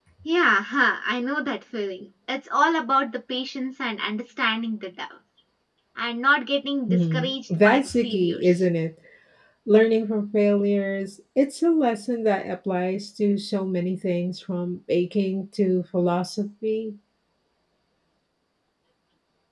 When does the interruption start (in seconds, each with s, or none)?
6.9 s